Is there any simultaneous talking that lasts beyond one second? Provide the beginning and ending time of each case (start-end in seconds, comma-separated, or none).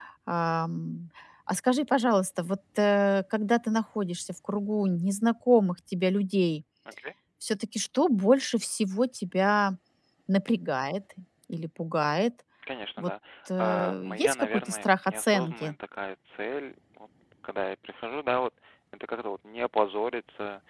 13.6-15.7